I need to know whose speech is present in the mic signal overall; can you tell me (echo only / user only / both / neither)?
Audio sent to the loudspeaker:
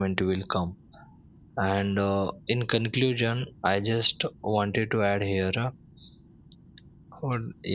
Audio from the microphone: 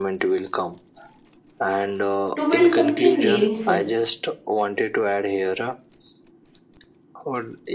both